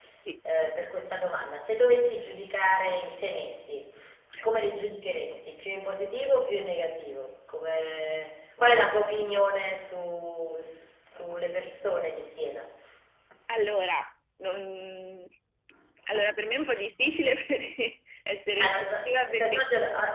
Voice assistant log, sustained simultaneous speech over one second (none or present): present